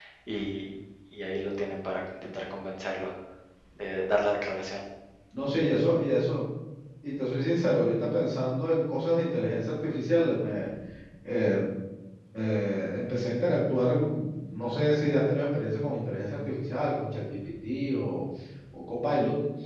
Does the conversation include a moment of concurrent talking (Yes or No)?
No